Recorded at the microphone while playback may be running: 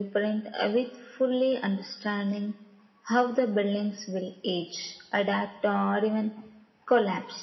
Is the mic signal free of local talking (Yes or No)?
Yes